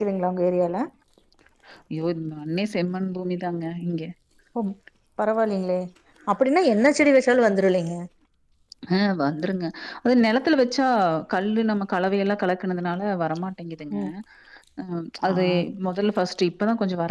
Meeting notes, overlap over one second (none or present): none